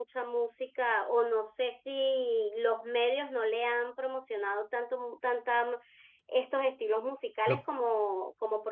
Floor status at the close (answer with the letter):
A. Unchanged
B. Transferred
A